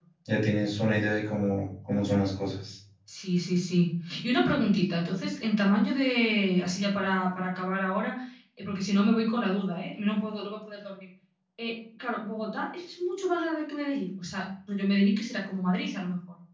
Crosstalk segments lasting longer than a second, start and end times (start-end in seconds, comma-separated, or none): none